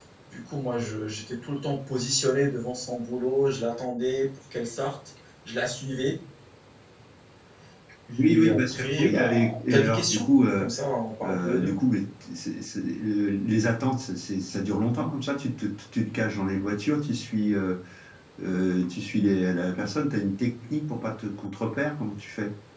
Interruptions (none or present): present